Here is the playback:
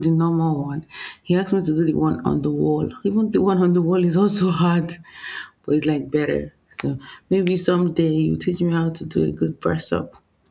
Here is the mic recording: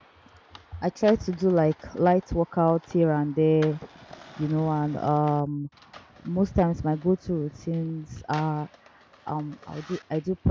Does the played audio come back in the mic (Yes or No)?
No